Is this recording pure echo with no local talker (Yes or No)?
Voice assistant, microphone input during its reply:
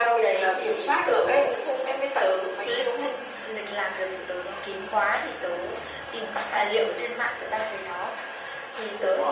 Yes